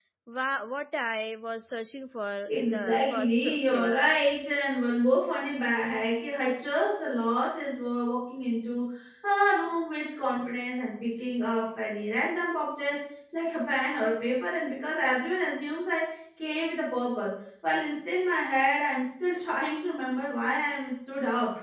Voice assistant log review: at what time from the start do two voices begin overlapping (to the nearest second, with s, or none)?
2 s